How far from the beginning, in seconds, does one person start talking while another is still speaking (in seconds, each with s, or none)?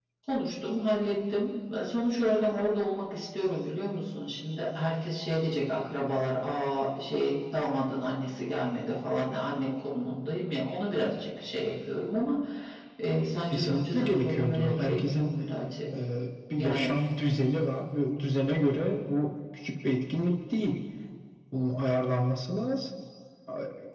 13.5 s